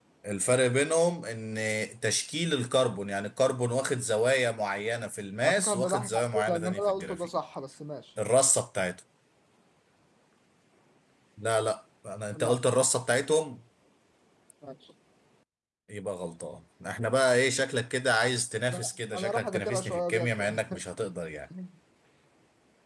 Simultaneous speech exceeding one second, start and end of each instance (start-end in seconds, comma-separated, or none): 5.4-7.3, 18.7-20.6